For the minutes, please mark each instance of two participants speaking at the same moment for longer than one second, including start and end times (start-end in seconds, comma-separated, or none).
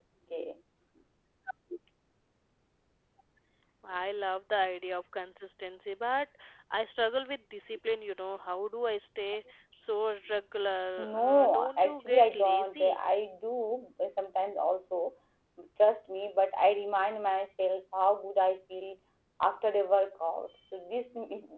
11.0-13.0